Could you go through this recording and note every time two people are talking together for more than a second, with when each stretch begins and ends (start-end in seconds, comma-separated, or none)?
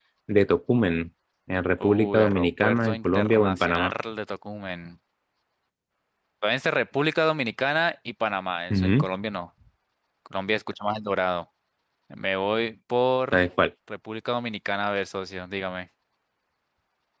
1.8-3.9